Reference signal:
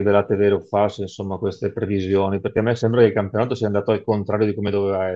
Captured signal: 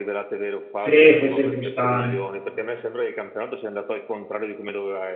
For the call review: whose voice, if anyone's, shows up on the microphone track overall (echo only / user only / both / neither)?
both